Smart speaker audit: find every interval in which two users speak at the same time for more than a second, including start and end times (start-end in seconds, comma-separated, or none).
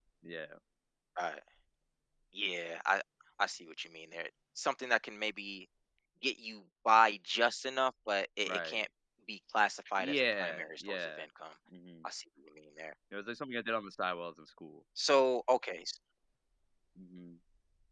10.0-11.2